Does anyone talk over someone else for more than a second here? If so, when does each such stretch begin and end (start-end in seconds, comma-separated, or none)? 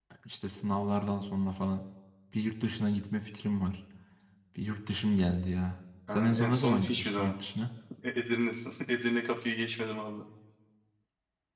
6.1-7.3